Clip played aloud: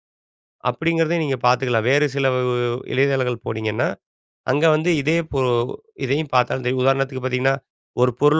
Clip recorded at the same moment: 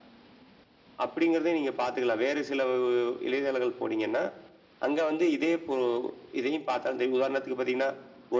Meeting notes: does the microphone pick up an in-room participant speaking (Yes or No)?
No